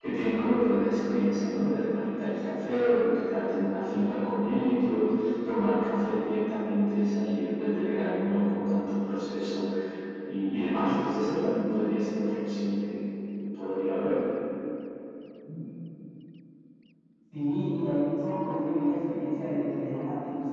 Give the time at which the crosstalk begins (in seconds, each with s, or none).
none